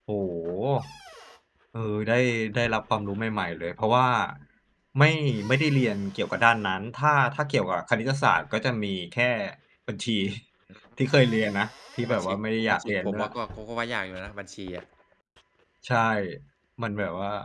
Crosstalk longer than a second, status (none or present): present